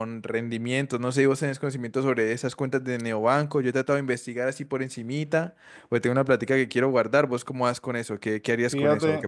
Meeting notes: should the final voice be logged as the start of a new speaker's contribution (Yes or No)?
Yes